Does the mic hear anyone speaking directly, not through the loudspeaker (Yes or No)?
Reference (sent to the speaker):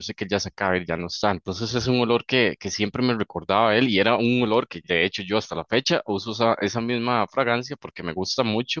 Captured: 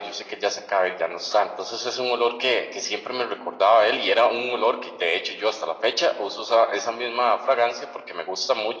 No